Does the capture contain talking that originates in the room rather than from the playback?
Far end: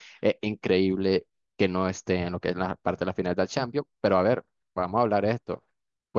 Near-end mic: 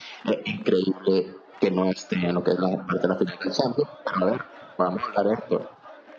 No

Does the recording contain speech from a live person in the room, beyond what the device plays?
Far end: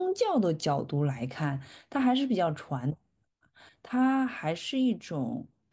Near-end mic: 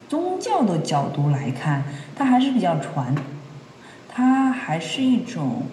No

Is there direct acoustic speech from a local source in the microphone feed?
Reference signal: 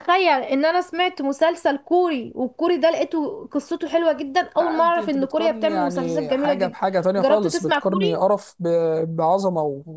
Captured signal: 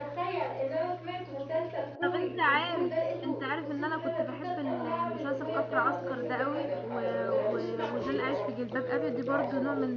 Yes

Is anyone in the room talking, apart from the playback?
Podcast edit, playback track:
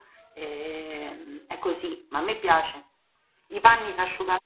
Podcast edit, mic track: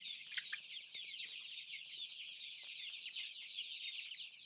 No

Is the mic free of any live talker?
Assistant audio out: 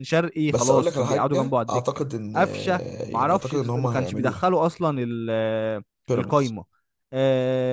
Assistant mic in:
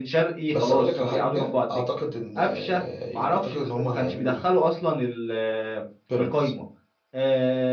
Yes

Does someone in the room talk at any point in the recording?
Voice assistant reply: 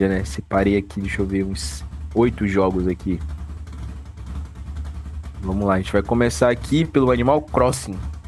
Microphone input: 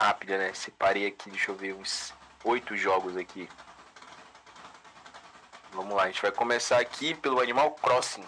No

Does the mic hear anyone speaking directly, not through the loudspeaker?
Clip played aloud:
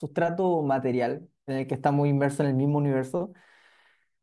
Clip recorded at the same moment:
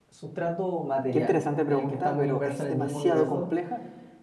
Yes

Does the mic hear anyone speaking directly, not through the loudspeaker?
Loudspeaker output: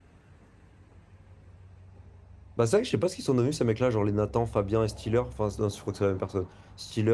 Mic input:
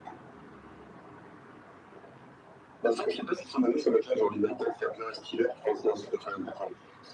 No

